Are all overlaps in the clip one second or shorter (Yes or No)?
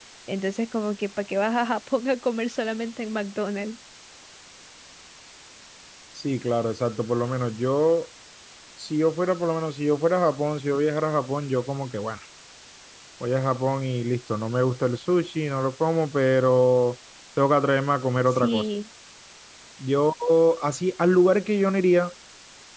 Yes